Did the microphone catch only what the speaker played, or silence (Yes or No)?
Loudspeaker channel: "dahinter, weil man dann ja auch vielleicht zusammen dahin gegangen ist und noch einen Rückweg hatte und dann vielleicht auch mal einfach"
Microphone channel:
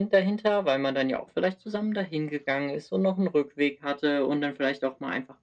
Yes